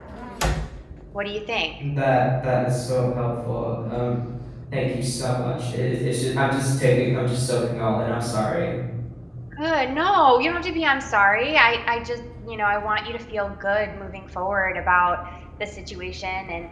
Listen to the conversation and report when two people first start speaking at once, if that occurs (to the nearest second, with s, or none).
none